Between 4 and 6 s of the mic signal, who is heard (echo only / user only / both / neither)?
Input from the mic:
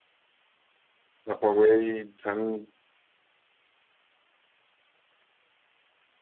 neither